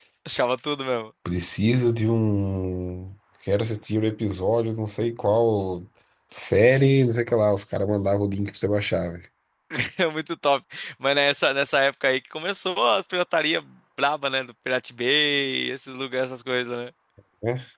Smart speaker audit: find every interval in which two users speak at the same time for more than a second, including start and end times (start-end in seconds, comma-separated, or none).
none